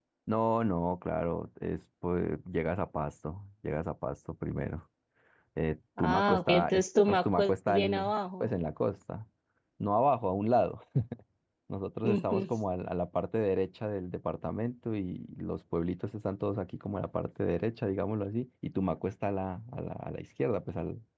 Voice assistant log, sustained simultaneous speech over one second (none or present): present